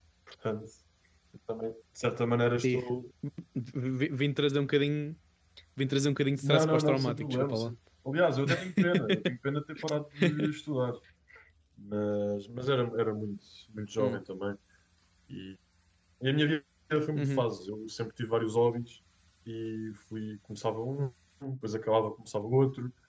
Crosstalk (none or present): present